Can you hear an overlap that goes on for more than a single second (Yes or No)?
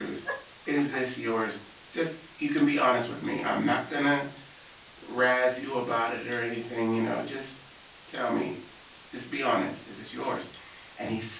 No